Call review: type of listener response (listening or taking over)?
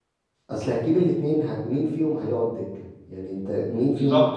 taking over